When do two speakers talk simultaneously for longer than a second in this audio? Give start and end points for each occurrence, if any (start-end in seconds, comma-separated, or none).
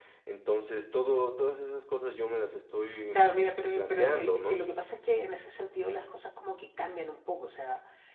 3.1-4.6